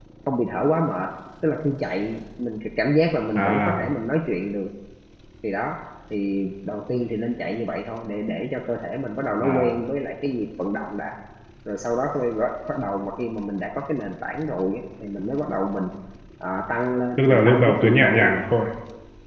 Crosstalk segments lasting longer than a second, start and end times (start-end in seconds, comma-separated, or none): 17.2-18.4